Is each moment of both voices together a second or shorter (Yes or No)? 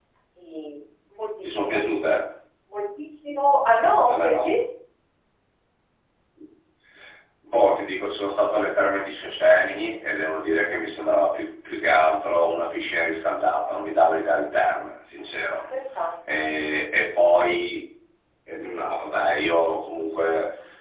Yes